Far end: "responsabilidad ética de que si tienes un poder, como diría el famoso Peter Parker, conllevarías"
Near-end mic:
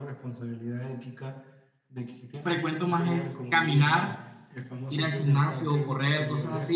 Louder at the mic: user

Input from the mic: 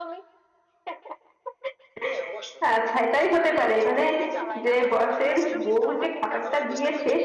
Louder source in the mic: user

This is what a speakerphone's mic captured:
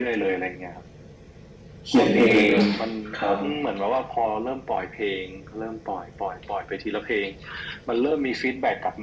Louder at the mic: user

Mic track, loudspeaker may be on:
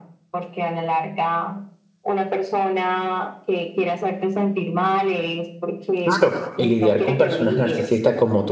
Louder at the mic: user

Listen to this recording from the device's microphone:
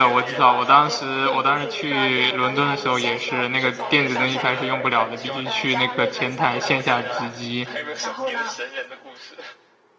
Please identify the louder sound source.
user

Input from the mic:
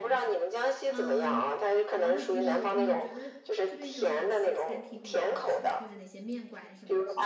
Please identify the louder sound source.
echo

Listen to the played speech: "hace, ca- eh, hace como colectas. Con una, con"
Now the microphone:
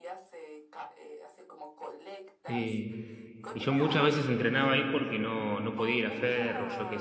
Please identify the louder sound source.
user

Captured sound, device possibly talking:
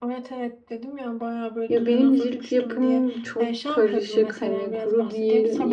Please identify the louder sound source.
user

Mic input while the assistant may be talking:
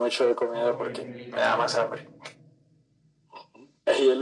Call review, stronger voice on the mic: echo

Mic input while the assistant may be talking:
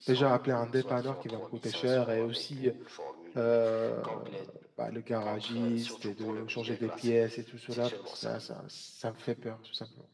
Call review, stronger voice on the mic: user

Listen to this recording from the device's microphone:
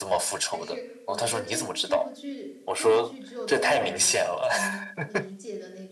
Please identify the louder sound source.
echo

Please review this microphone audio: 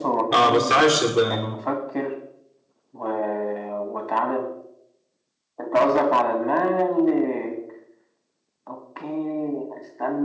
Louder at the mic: user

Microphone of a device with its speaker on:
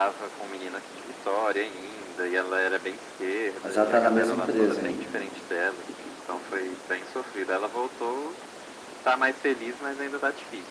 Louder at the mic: user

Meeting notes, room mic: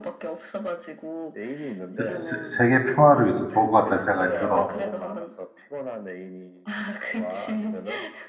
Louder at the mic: user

